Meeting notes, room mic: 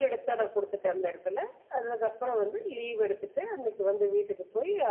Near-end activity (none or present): none